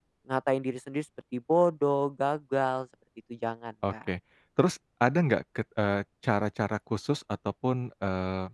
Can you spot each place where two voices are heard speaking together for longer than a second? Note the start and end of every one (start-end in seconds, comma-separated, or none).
none